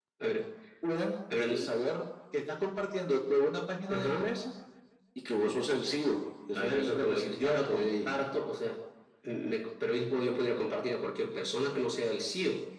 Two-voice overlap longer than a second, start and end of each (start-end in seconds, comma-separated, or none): 6.5-8.1